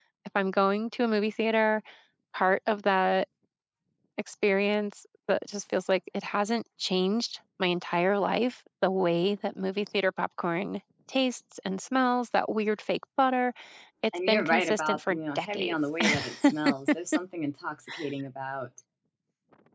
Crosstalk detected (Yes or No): Yes